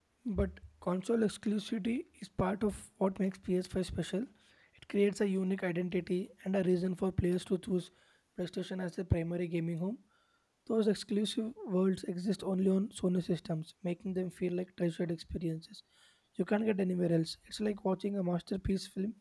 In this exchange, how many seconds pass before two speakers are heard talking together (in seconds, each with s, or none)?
none